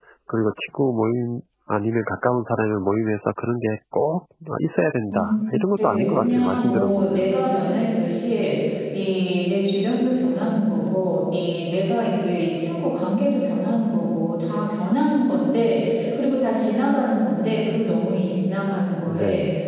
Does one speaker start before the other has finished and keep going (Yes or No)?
Yes